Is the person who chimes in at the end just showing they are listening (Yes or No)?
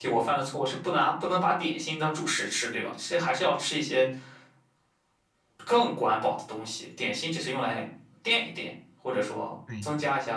No